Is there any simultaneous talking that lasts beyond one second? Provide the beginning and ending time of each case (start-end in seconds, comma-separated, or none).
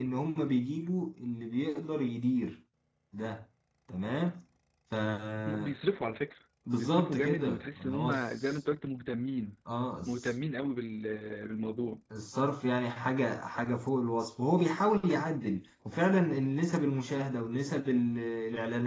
6.7-8.6